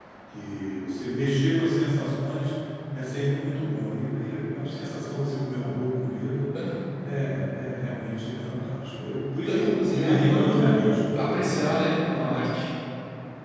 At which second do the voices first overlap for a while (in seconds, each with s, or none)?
9.5 s